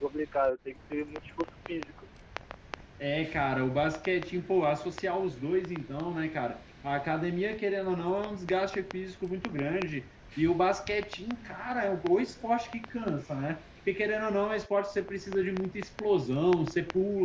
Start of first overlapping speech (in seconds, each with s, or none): none